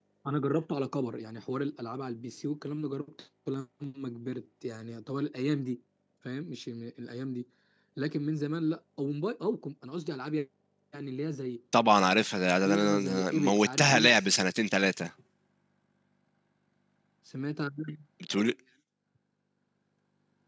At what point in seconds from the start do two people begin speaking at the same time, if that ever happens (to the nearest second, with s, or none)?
13 s